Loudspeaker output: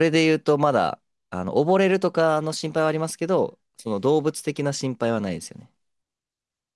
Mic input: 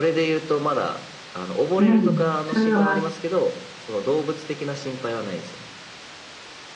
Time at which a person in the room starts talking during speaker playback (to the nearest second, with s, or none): 2 s